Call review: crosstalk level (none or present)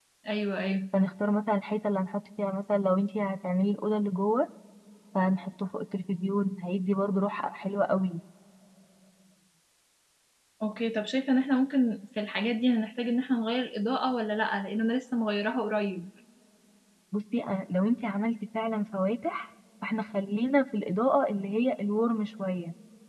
none